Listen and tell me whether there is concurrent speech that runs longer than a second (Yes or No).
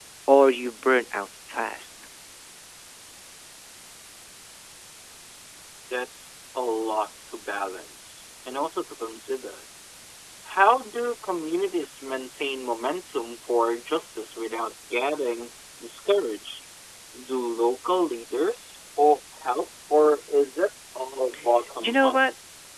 No